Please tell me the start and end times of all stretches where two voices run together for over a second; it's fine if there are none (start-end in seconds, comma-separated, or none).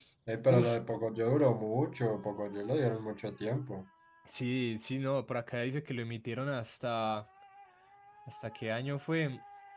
none